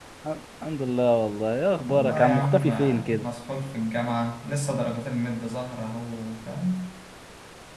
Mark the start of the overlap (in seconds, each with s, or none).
1.9 s